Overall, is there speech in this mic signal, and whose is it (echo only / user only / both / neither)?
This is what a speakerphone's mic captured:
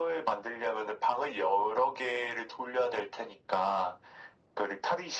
echo only